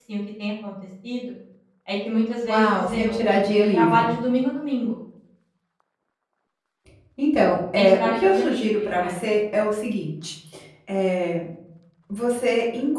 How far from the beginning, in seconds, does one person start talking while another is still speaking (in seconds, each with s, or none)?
2.4 s